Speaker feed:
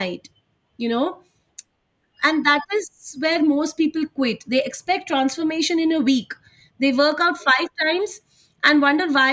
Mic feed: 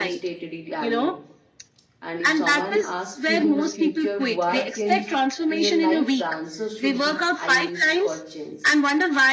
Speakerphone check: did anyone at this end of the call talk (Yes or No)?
Yes